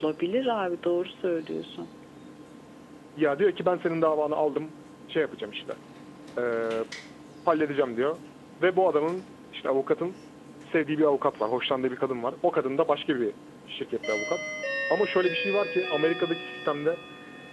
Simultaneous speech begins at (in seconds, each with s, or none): none